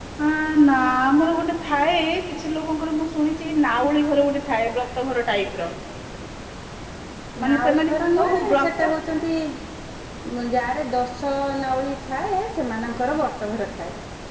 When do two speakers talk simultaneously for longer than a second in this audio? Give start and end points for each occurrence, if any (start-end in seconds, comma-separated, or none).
7.4-8.7